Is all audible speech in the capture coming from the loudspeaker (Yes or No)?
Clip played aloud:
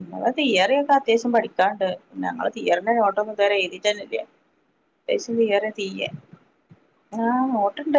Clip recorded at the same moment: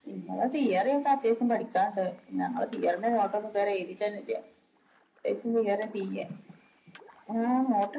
Yes